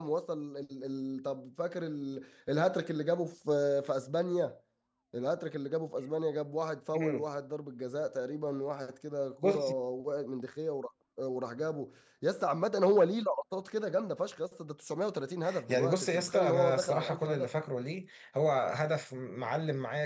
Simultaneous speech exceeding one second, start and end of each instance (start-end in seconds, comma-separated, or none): 15.7-17.5